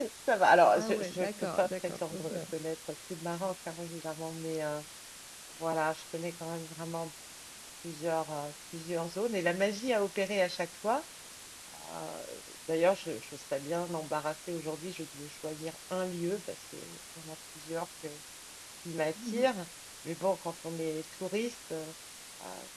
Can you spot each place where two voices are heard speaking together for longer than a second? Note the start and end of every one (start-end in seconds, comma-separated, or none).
0.8-2.3